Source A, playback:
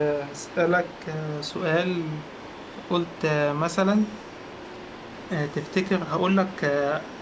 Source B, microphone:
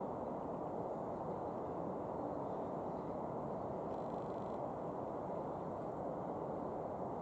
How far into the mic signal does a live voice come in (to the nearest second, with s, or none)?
none